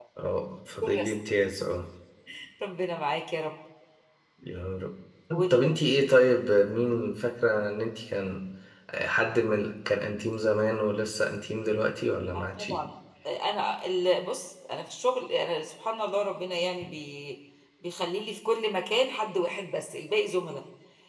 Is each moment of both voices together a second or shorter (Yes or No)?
Yes